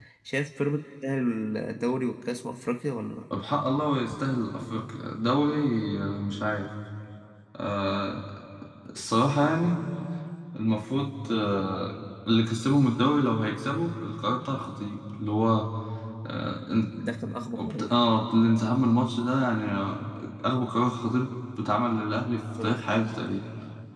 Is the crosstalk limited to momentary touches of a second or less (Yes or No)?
Yes